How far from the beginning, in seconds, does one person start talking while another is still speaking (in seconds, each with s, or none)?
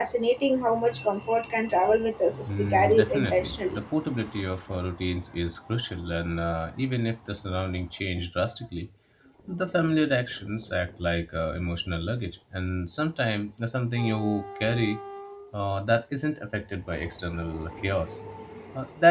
2.5 s